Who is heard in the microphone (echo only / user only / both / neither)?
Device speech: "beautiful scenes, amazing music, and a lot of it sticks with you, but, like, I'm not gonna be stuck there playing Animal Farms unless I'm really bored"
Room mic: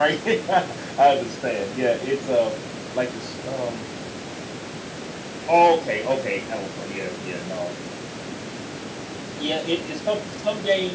user only